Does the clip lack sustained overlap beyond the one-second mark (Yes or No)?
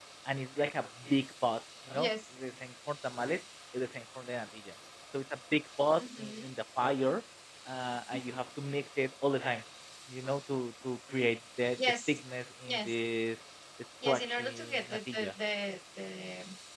No